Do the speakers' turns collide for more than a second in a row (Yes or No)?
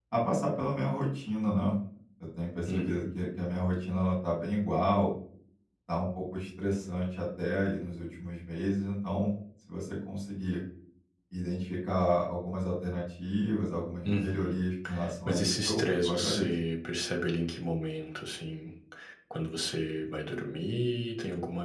Yes